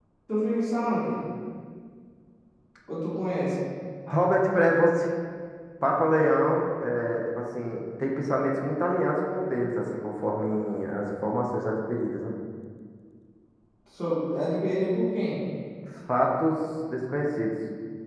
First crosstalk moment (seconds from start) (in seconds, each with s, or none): none